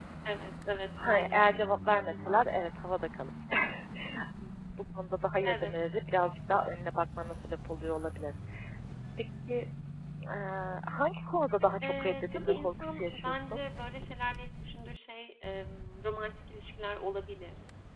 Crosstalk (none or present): present